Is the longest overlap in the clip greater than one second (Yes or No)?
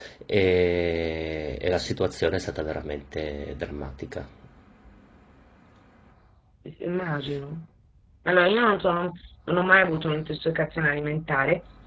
No